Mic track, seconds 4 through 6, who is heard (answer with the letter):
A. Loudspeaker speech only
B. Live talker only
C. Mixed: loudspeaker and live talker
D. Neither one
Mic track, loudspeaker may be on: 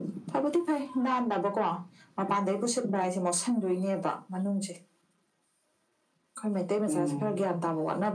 A